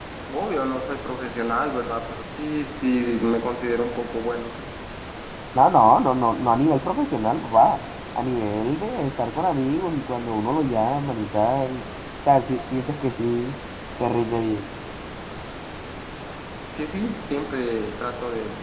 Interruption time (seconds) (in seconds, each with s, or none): none